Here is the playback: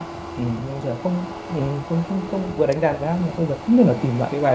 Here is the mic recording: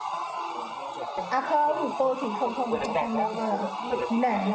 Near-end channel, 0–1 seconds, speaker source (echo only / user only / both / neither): echo only